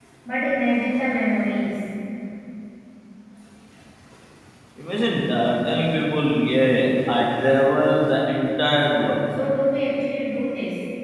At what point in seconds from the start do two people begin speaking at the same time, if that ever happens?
none

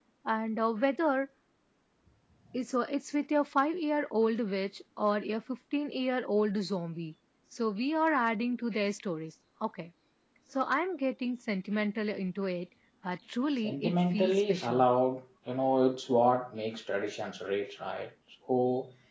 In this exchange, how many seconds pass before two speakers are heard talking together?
14 s

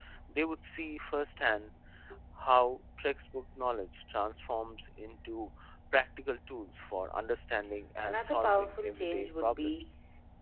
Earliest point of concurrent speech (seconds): 8 s

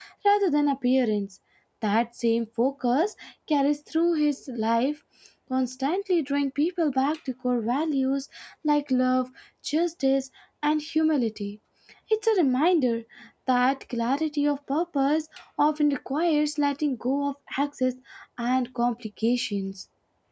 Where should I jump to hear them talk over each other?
none

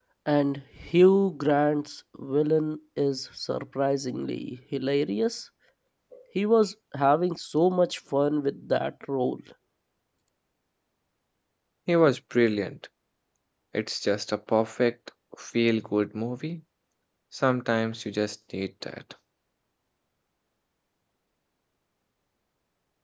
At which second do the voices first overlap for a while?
none

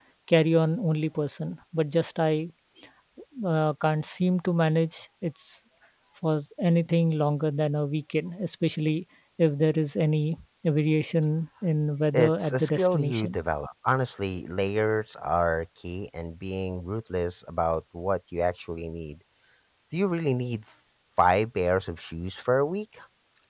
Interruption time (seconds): 12 s

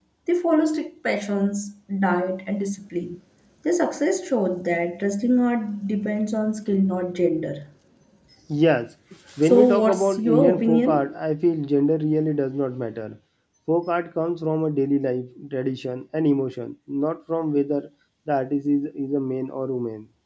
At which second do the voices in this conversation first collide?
9 s

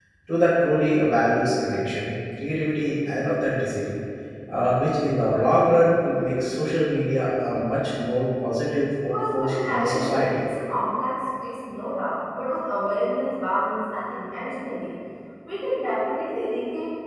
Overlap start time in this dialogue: 9 s

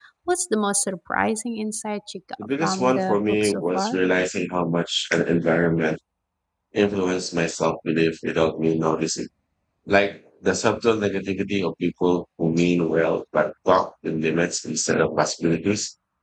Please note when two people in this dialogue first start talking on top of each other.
2 s

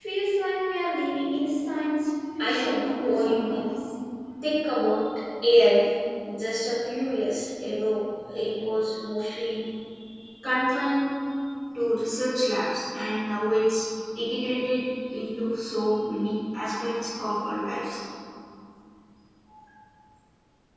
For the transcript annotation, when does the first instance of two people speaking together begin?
2 s

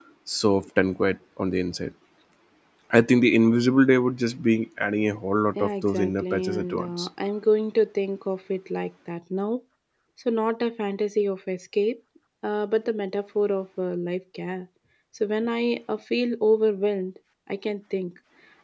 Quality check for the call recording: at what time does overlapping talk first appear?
6 s

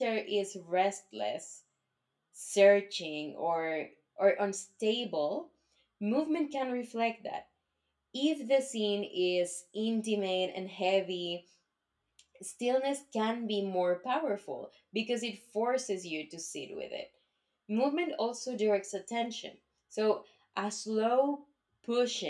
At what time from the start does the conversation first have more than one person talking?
none

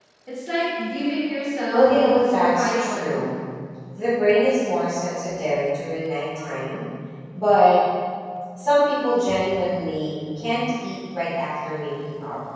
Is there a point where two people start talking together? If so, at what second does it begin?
2 s

